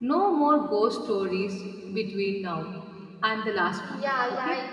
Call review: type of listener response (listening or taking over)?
taking over